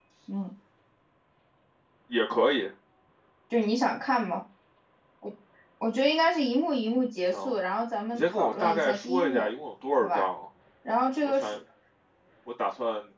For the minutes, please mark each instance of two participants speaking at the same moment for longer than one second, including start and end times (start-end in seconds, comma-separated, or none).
8.1-9.5